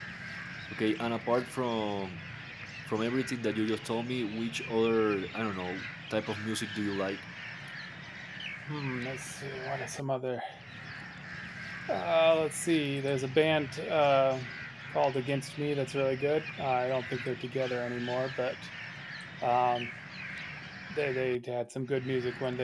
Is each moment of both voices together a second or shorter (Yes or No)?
Yes